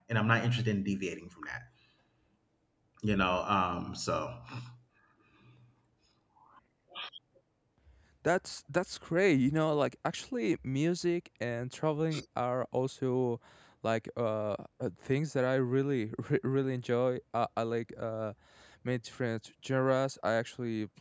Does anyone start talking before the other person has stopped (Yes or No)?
No